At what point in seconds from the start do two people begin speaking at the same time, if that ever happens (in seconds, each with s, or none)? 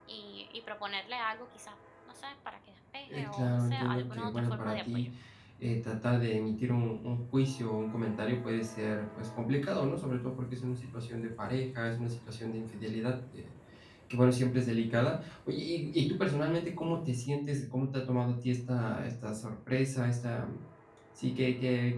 3.1 s